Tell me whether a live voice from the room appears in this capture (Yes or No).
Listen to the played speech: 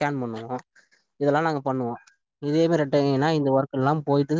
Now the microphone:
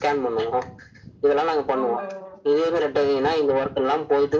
Yes